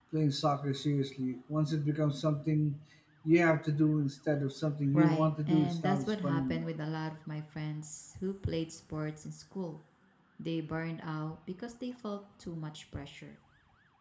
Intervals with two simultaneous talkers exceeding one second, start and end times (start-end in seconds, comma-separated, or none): 4.9-6.7